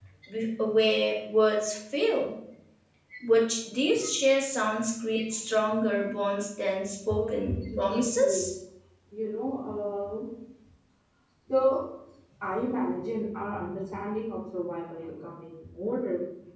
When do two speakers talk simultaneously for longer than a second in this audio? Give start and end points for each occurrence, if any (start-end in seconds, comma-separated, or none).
7.1-8.4